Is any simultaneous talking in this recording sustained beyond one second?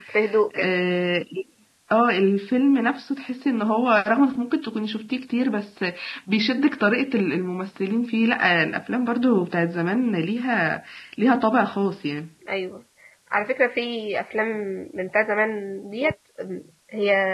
No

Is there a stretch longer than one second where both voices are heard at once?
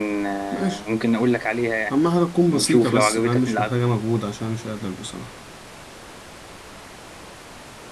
Yes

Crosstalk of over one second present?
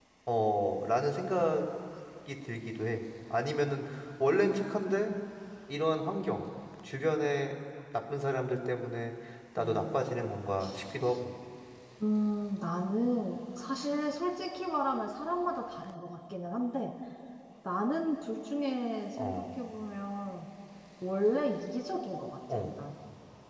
No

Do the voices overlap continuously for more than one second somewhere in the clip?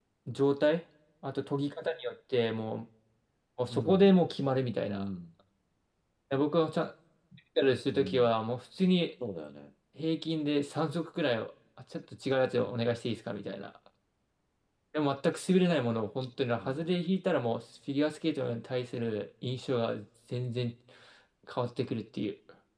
No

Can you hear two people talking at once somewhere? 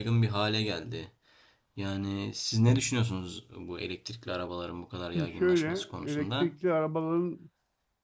Yes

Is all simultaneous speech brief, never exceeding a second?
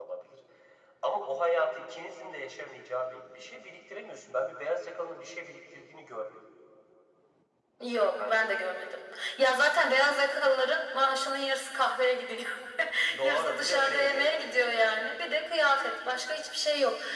No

